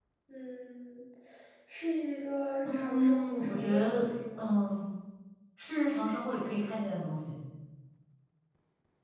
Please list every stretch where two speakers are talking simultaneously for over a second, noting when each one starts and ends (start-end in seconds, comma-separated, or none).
2.6-4.5